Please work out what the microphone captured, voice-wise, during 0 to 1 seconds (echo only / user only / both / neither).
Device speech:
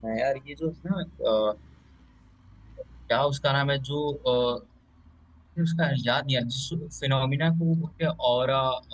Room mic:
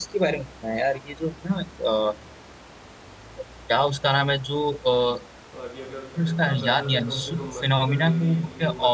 echo only